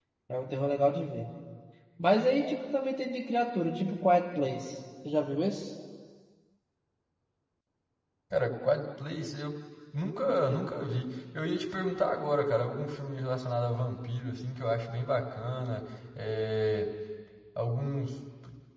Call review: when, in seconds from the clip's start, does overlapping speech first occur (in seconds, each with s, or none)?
none